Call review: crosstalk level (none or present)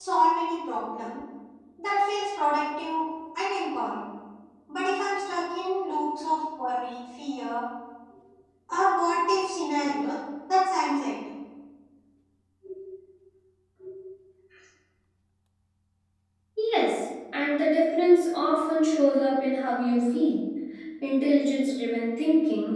none